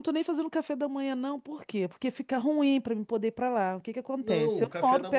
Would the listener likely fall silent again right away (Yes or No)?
No